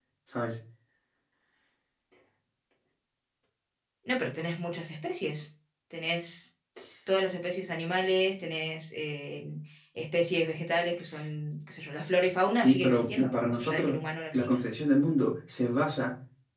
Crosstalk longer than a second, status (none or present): present